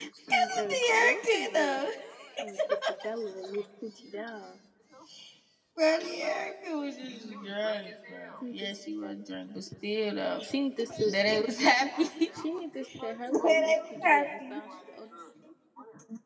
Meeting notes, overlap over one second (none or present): present